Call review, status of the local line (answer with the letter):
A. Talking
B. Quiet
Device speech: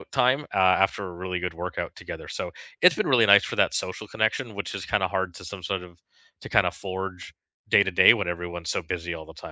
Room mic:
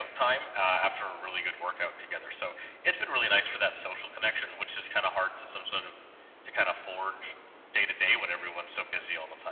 B